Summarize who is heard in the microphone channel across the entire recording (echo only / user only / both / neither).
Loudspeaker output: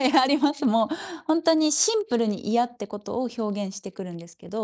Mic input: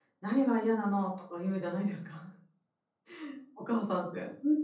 user only